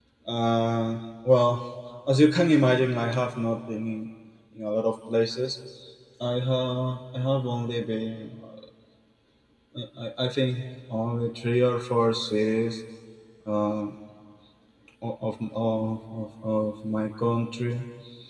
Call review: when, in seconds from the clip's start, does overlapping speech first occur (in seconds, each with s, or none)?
none